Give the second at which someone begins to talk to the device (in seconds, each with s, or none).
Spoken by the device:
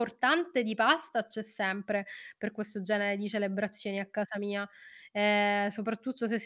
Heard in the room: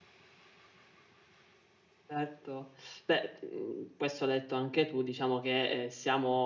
2.1 s